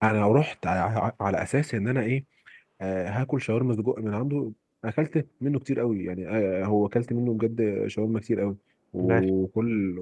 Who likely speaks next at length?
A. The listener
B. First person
B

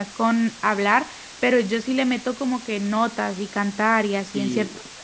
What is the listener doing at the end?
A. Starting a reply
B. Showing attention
A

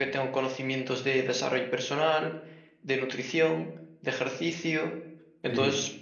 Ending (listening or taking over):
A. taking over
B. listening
B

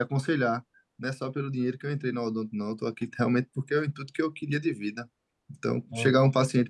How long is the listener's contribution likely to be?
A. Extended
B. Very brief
B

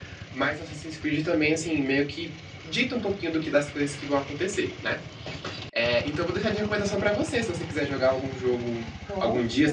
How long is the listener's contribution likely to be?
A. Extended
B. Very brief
B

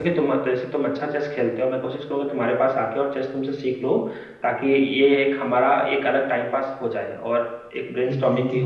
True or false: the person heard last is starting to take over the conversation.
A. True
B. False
A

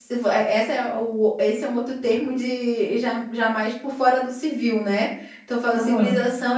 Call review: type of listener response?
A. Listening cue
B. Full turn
A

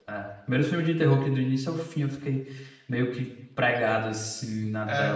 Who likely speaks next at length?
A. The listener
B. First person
A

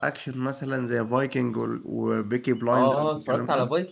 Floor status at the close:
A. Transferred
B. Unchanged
A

